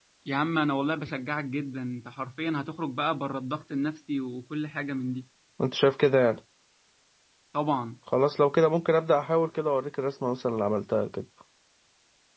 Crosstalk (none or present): none